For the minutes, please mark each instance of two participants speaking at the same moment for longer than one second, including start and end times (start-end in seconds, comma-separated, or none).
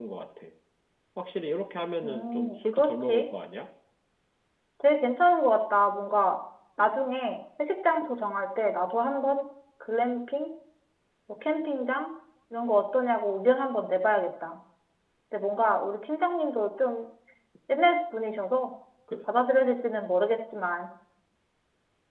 2.0-3.3